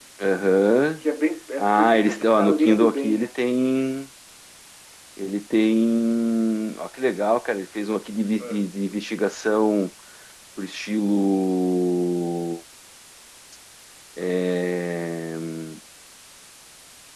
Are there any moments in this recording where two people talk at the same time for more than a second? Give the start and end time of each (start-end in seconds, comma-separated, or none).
1.6-3.3